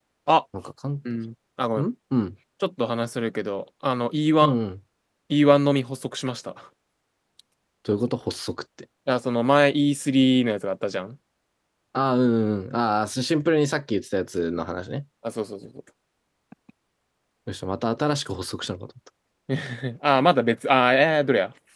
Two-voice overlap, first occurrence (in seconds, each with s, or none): none